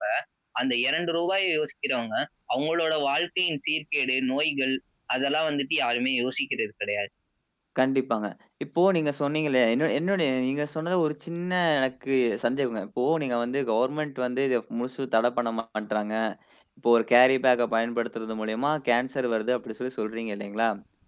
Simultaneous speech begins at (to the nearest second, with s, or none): none